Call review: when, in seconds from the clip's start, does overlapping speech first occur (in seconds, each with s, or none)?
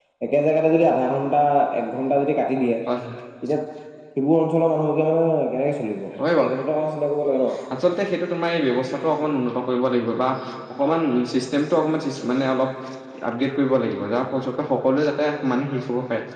none